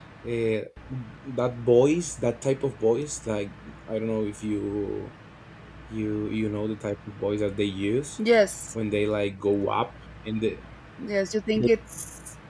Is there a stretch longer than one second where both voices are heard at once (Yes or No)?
No